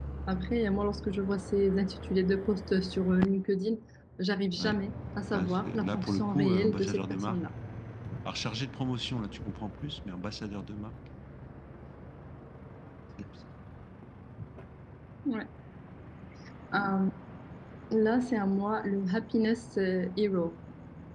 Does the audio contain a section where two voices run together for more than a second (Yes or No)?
Yes